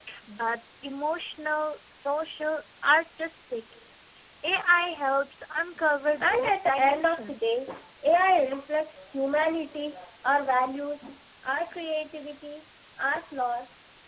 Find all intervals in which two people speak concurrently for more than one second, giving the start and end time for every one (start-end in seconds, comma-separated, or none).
6.2-7.4